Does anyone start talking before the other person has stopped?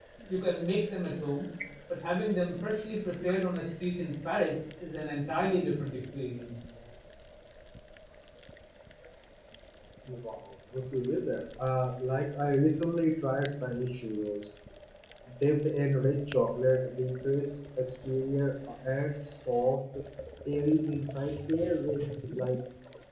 No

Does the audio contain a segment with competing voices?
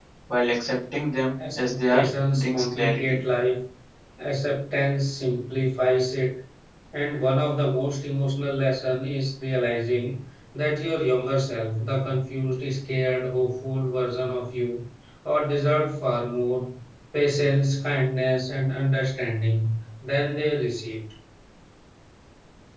Yes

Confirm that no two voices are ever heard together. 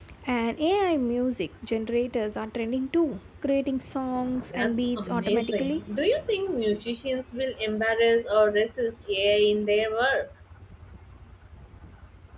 No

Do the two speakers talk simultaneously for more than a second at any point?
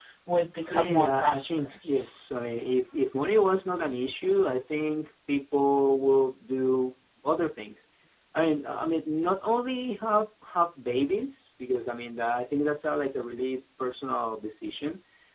Yes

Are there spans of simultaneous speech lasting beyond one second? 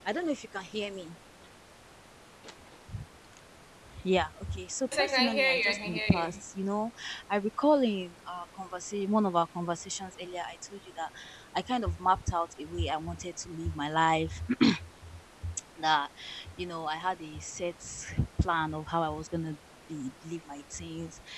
Yes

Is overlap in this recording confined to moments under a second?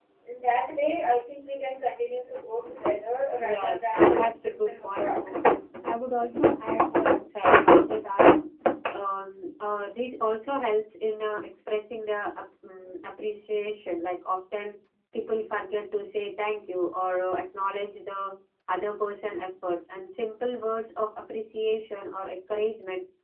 No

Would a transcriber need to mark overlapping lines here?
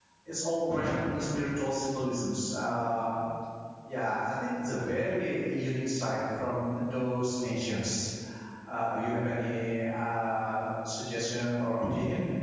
No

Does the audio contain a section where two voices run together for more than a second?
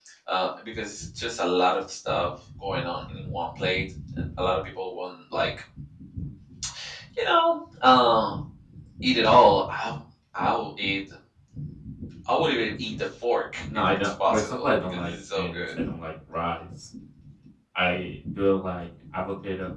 Yes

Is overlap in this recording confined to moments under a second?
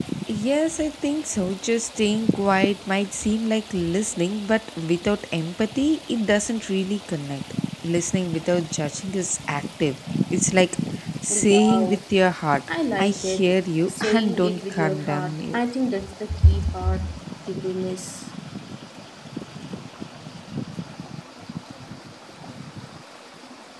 No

